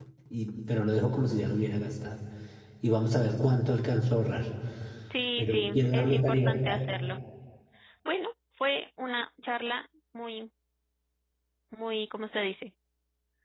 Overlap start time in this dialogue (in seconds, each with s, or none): 5.4 s